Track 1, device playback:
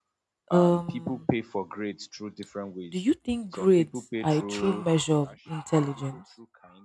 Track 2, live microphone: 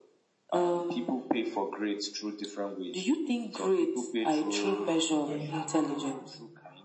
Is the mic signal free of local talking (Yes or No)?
No